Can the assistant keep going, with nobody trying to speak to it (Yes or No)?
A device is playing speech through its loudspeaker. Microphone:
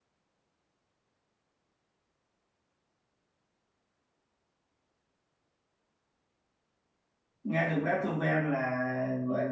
No